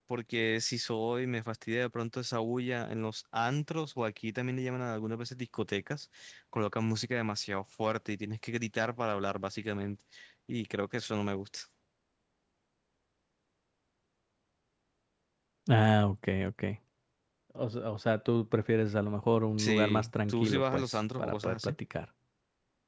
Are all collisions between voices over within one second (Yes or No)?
No